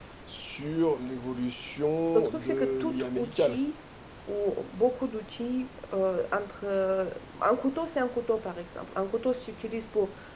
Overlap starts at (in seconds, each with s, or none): 2.1 s